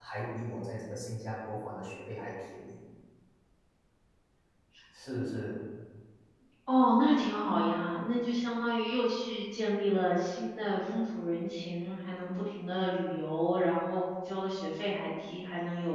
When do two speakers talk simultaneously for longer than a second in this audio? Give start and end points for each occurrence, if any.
none

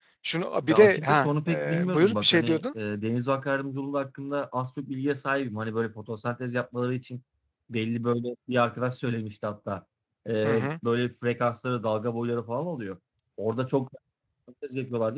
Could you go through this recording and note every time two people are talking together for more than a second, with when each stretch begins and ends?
0.7-2.6

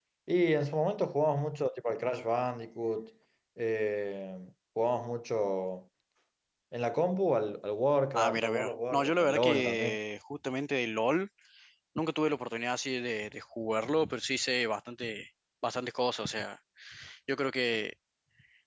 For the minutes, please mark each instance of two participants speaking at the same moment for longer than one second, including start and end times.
8.1-10.0

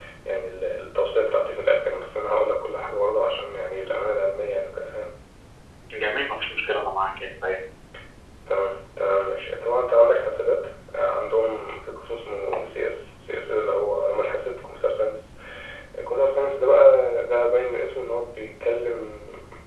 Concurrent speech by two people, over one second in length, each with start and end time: none

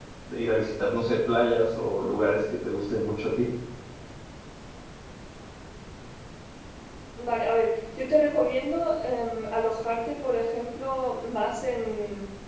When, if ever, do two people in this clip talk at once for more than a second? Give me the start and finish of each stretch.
none

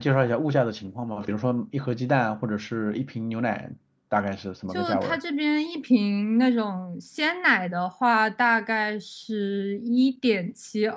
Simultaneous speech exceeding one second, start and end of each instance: none

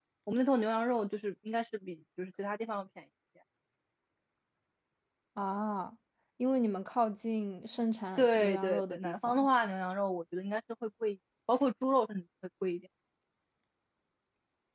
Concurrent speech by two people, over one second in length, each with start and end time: 8.2-9.5

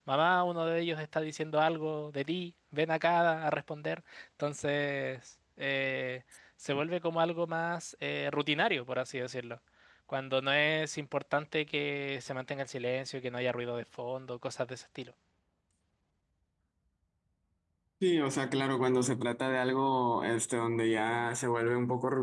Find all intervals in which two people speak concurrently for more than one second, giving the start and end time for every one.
none

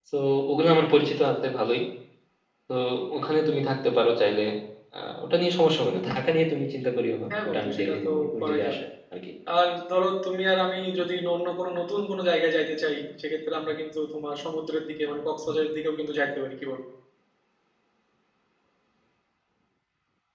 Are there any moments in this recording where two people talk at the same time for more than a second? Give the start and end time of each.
7.3-8.8

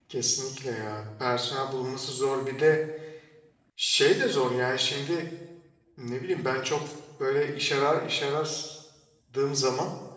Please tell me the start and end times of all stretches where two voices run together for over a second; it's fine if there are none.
none

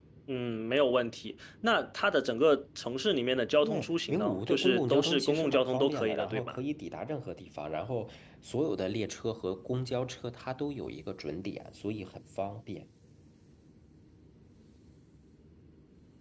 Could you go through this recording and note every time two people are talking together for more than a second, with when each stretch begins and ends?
3.6-6.6

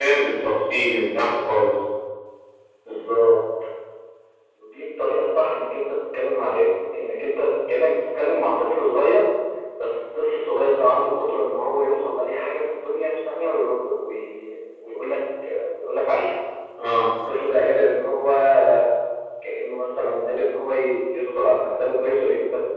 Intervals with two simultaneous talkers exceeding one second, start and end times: none

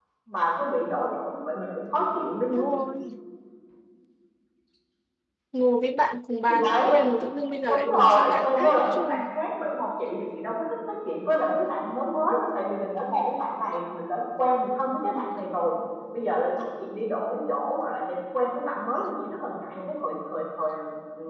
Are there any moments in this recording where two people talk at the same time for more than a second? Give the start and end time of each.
7.7-9.2

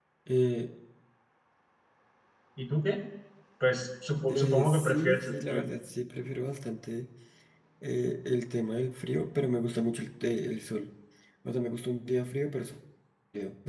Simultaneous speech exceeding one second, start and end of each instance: 4.1-5.7

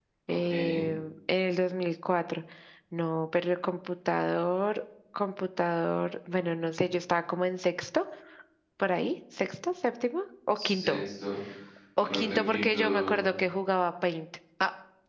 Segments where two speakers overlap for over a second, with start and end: 12.0-13.3

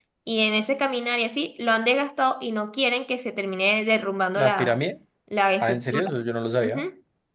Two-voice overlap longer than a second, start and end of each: none

